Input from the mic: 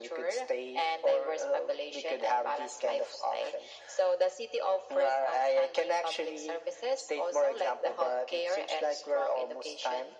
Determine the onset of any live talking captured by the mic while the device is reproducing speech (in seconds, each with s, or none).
none